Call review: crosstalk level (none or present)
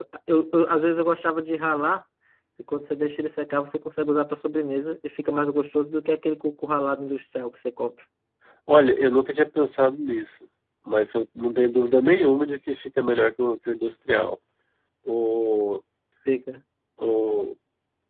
none